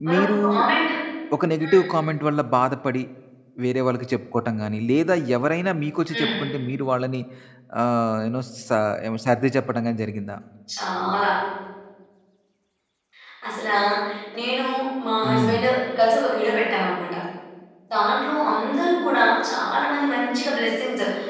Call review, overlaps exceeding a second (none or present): none